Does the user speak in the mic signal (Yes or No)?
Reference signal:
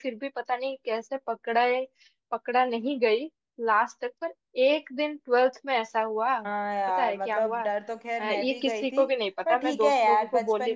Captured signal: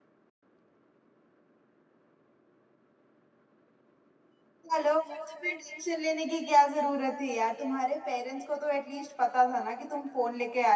Yes